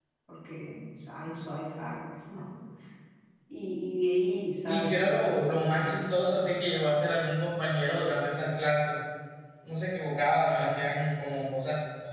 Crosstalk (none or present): present